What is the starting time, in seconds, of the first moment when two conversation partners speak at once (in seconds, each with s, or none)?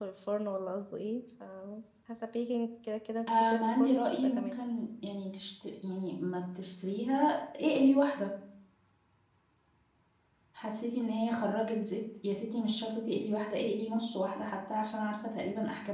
3.3 s